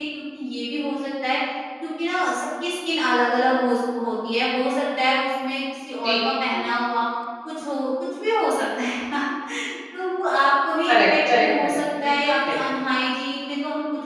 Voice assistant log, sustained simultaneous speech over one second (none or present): present